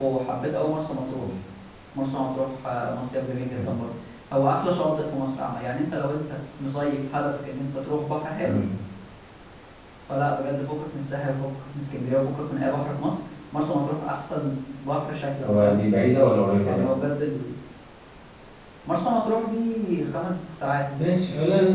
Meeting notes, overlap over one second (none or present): none